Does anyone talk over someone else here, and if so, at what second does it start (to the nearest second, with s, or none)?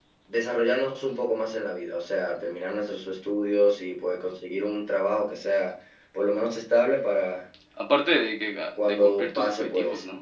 9 s